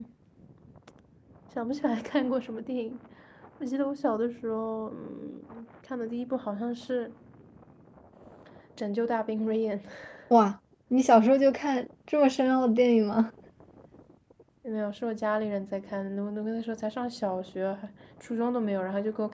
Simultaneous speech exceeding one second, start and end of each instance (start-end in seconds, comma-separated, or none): none